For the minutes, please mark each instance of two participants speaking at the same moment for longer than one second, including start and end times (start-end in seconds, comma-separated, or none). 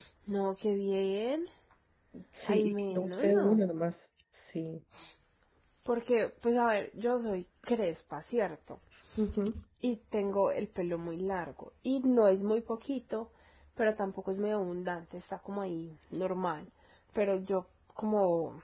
2.4-3.7